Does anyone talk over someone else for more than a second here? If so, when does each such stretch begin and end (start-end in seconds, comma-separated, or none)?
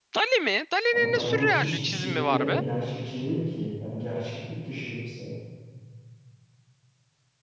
0.9-2.6